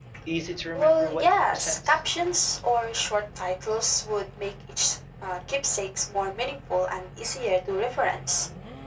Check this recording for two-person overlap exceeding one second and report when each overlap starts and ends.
0.7-2.0

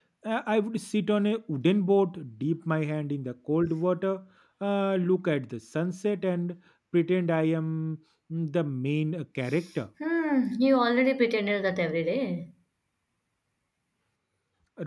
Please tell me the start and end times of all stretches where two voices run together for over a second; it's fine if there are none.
none

